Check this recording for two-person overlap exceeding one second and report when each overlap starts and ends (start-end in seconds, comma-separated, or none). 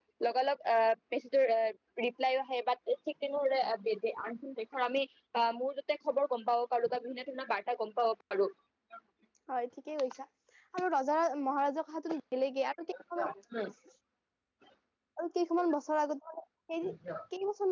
none